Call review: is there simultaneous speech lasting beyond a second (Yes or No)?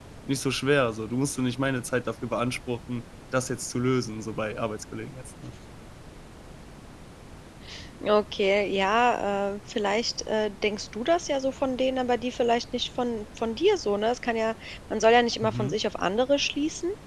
No